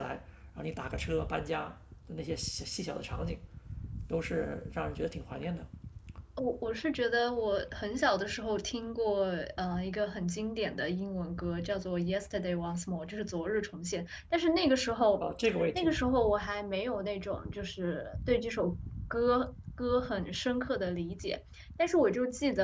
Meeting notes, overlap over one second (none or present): none